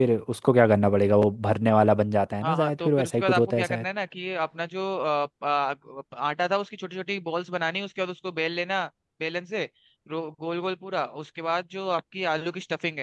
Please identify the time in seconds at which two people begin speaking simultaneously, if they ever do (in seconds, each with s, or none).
2.4 s